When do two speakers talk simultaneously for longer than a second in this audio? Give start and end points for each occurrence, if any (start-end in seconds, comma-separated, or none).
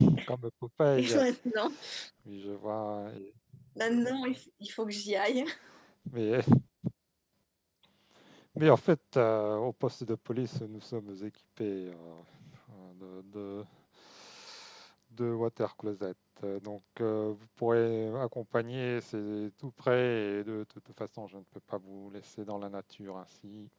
none